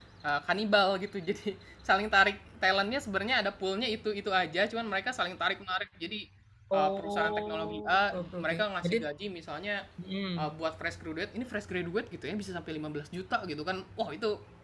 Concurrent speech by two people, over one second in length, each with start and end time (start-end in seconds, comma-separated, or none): 6.8-9.0